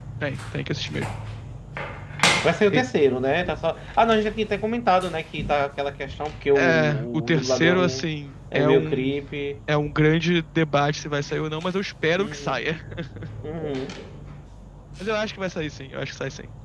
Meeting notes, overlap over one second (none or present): present